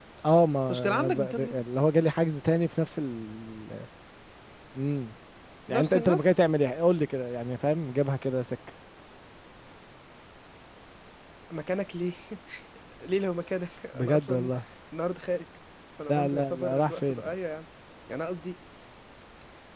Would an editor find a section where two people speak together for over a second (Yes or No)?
Yes